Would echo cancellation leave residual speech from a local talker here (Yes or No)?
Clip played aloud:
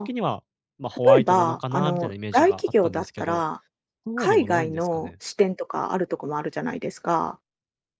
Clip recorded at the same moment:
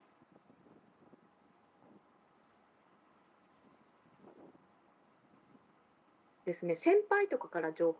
Yes